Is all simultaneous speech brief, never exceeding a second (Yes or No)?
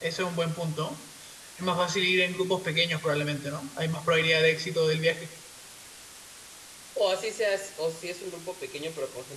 Yes